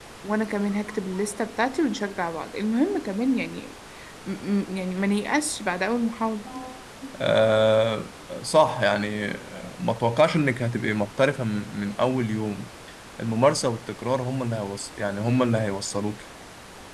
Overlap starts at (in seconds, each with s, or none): none